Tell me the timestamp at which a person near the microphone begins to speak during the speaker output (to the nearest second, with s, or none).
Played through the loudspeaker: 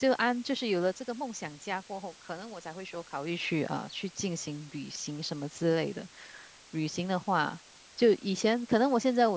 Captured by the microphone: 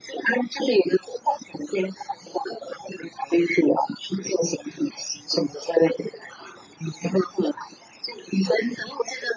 none